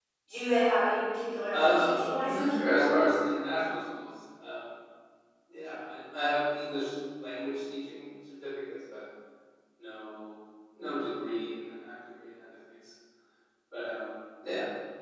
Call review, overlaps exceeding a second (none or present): present